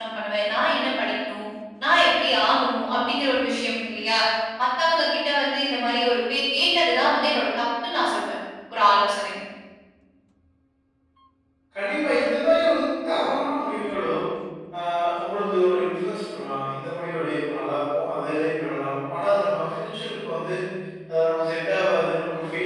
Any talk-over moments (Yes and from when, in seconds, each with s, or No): No